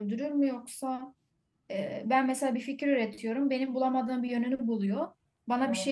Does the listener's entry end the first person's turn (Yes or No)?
No